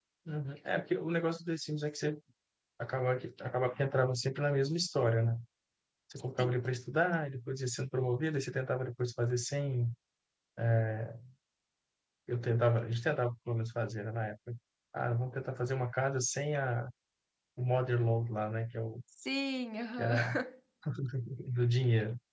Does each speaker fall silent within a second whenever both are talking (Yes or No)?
Yes